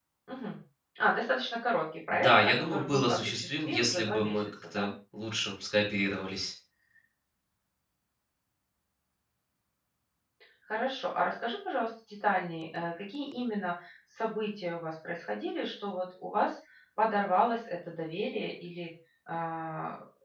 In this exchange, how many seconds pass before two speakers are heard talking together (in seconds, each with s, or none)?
2.1 s